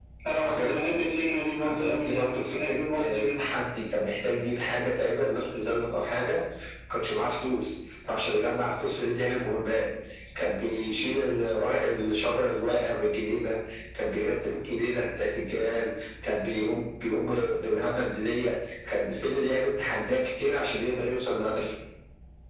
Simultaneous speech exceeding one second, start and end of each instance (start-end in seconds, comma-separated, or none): 1.6-3.5